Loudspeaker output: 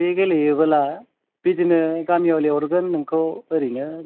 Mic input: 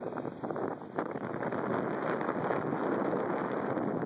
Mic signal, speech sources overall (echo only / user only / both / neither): neither